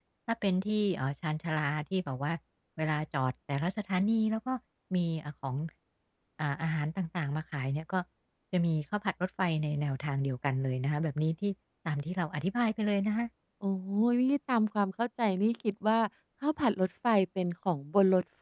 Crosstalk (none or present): none